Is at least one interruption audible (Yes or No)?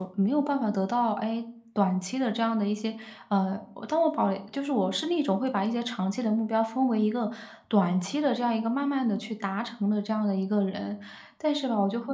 No